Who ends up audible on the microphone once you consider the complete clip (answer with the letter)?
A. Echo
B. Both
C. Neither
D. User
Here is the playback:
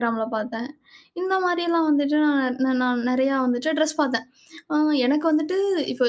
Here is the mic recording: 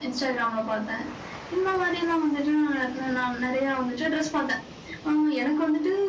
A